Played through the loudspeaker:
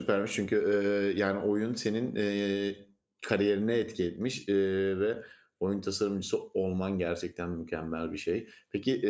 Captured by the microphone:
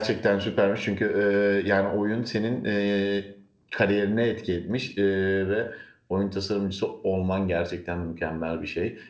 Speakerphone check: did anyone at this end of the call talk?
No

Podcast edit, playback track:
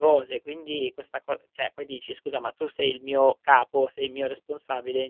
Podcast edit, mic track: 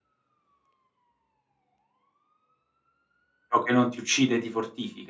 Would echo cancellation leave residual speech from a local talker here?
Yes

